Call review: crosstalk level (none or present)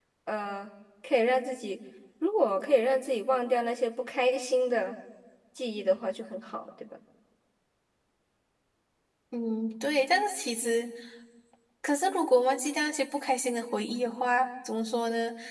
none